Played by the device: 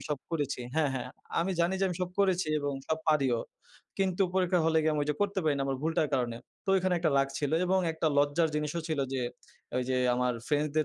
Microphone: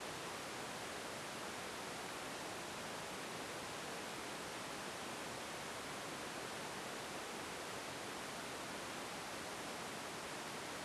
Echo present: No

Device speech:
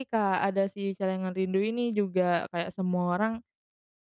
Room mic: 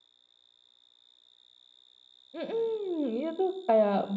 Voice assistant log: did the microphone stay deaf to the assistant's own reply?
Yes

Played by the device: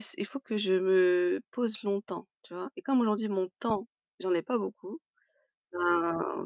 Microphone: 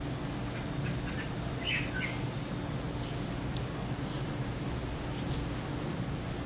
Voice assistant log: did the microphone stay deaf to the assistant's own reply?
Yes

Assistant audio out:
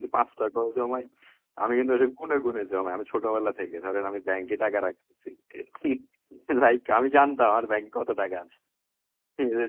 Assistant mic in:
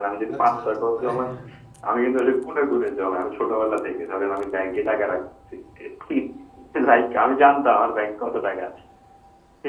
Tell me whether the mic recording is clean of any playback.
No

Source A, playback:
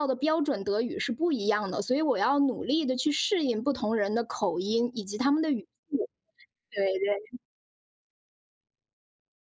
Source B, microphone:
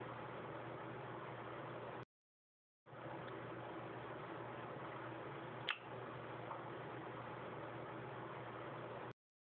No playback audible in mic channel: Yes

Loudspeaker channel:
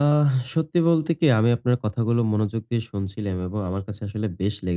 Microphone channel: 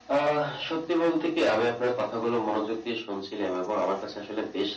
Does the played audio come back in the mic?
Yes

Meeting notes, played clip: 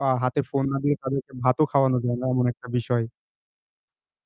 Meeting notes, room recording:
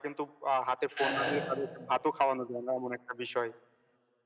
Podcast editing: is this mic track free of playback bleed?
No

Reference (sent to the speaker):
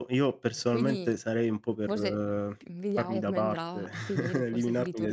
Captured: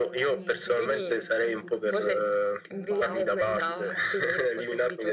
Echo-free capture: No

